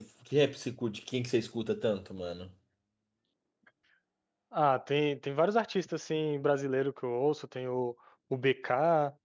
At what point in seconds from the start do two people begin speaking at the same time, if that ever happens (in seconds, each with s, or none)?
none